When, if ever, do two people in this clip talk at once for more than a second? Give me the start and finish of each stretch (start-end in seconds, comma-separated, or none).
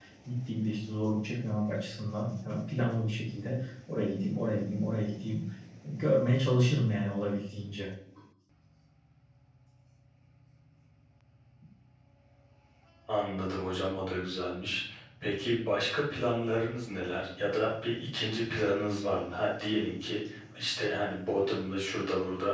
none